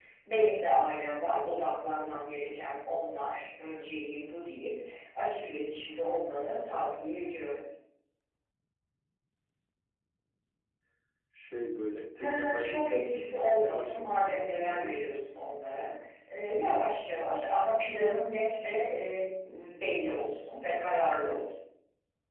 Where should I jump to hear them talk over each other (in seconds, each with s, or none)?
12.2 s